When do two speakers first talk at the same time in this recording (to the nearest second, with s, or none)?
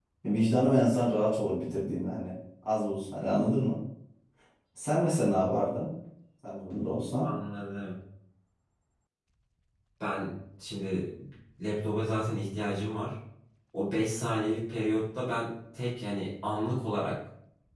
none